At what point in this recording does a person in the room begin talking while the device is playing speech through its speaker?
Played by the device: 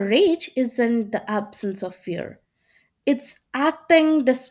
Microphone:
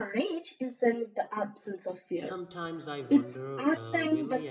2.1 s

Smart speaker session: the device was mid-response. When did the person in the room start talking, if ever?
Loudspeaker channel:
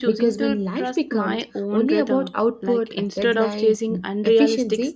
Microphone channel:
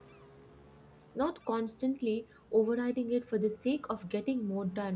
1.1 s

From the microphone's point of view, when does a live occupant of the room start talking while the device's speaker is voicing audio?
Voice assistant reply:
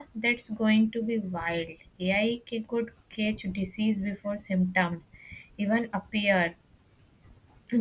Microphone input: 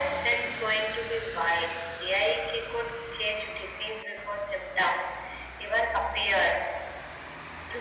none

